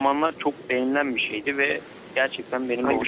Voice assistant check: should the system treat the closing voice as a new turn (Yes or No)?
No